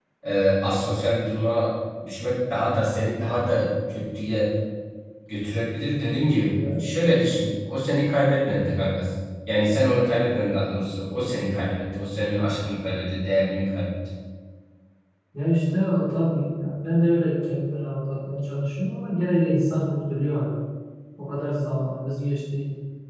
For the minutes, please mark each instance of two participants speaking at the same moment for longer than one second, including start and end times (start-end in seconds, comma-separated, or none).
none